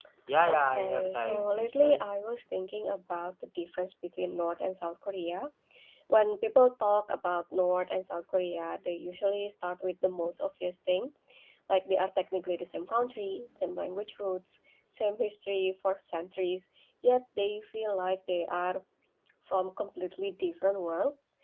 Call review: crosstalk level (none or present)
present